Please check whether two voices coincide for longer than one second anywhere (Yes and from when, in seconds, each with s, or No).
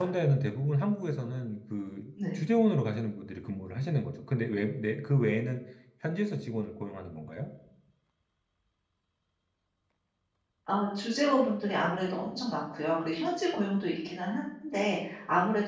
No